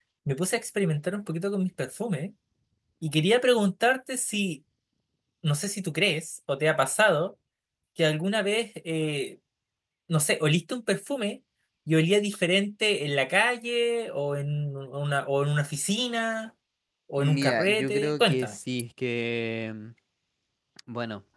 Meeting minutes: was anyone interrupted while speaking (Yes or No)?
Yes